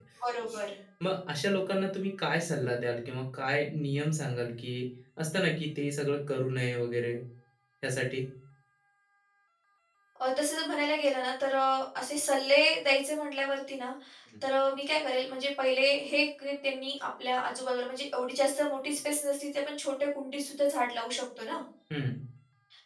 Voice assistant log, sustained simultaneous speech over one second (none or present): none